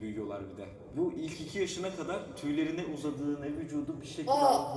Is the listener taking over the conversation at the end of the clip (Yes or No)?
No